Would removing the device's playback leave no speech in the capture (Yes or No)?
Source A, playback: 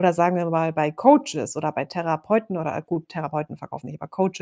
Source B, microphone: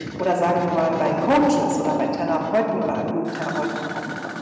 Yes